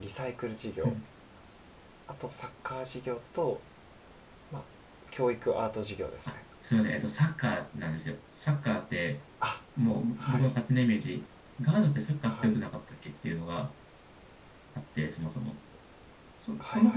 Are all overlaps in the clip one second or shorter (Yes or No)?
Yes